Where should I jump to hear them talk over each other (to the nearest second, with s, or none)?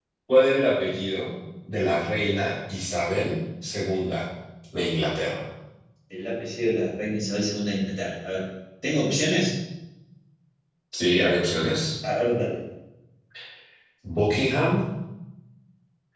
none